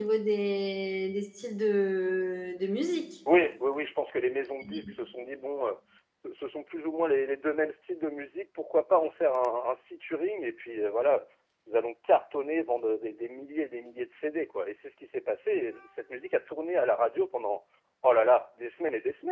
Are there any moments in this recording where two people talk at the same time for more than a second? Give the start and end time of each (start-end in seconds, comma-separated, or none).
none